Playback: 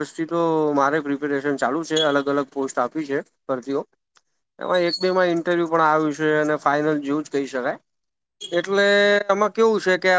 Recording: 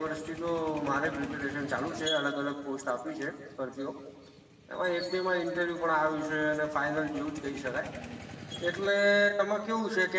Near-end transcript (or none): none